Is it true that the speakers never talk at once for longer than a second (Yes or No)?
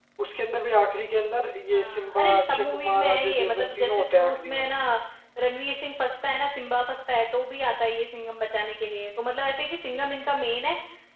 No